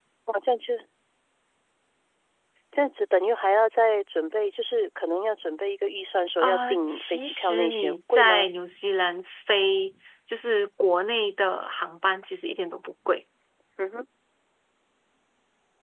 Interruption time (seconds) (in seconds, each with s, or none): 6.4 s